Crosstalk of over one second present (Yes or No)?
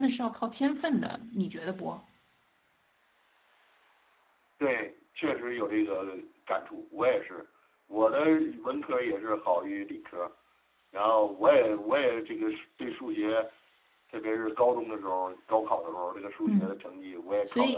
No